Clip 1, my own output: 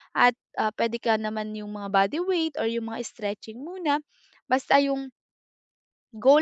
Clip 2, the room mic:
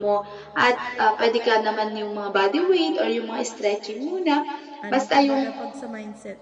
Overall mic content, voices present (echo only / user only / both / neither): both